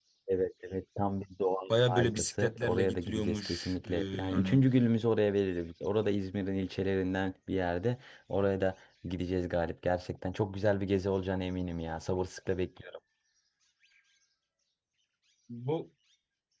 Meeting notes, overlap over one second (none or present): present